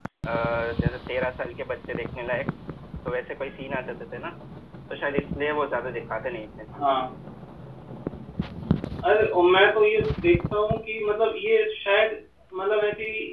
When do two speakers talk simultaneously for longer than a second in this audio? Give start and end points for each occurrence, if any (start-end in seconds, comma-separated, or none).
none